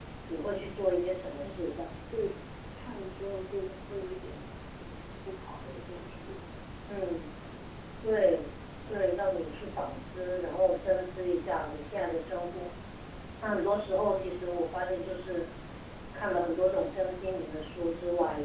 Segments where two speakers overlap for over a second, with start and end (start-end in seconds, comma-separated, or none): none